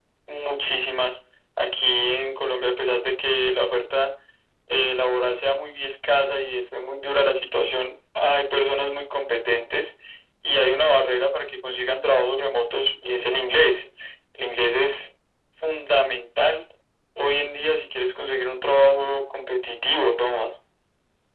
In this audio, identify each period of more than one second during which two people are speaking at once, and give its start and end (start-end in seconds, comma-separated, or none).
none